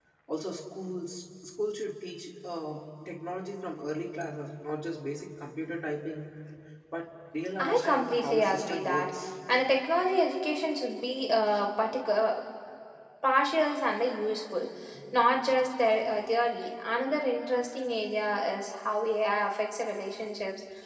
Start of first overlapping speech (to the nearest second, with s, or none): 8 s